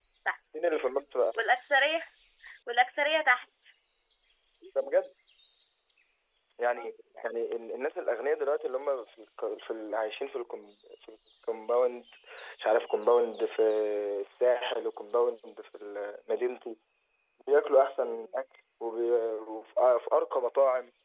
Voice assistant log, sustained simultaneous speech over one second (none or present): none